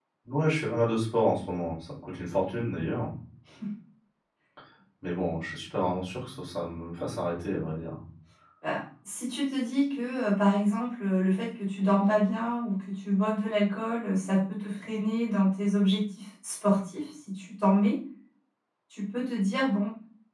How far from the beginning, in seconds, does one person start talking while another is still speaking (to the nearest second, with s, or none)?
none